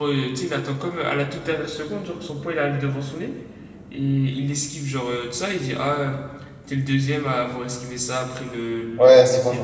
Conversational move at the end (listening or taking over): taking over